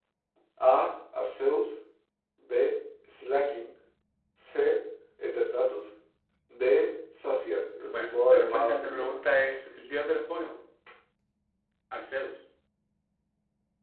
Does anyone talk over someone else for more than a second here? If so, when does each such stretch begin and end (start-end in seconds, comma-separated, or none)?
7.9-9.2